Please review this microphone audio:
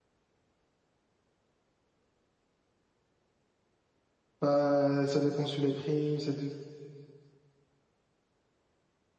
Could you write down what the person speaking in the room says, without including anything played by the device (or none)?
Bah, ça dépend sur les primes. Ça dé-